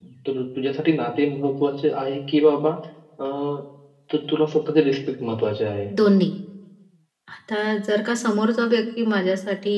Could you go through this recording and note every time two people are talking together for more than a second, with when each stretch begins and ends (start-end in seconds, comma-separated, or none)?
none